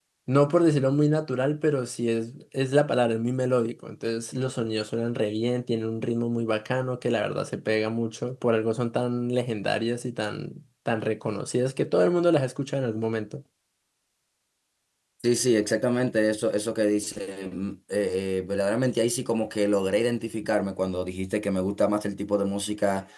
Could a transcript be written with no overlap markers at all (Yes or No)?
Yes